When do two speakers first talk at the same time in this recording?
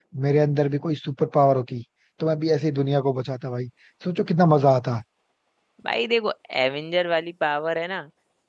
none

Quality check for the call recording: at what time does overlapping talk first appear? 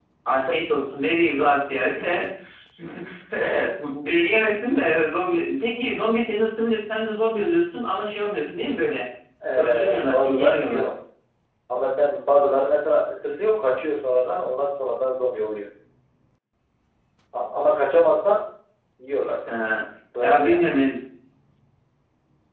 9.6 s

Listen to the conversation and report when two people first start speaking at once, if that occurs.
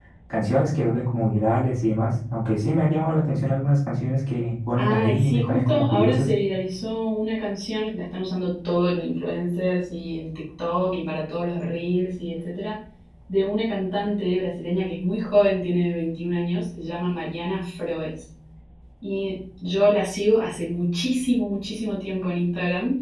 4.7 s

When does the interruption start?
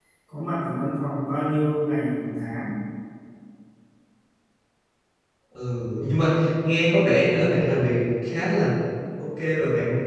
none

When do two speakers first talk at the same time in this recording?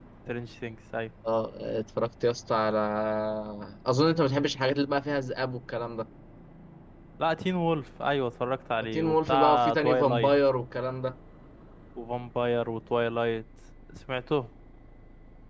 8.8 s

